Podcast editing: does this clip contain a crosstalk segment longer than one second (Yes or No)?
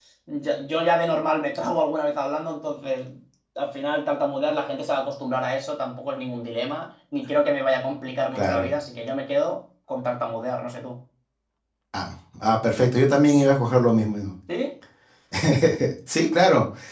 No